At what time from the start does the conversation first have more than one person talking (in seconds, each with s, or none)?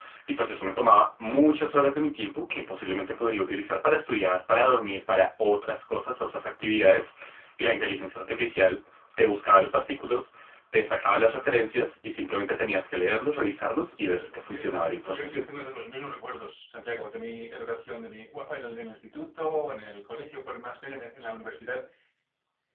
14.0 s